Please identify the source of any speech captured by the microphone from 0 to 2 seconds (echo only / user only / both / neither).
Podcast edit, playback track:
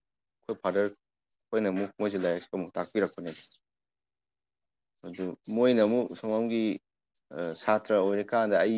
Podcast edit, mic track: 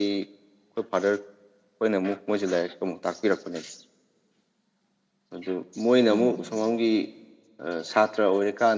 echo only